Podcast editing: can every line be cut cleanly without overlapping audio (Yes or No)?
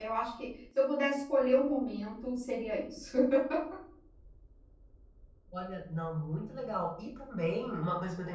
Yes